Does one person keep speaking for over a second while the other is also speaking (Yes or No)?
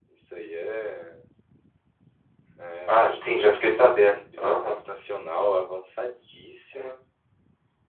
Yes